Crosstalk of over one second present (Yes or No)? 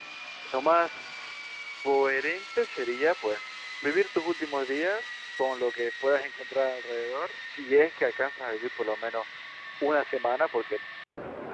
No